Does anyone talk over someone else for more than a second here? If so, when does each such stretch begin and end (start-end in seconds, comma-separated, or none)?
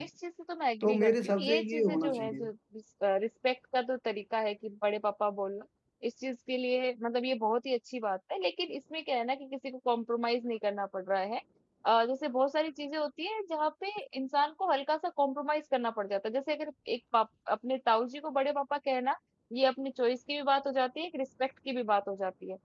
0.8-2.5